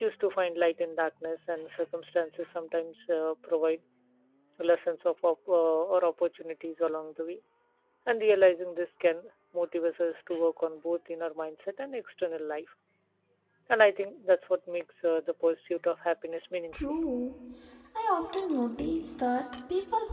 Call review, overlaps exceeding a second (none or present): none